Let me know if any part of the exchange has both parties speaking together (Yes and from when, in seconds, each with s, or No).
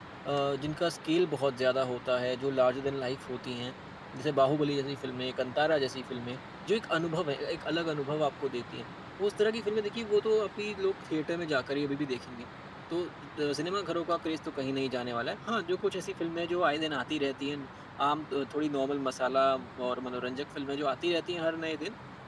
No